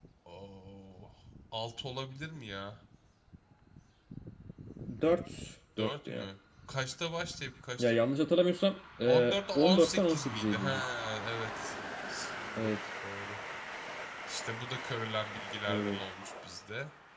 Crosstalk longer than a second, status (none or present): present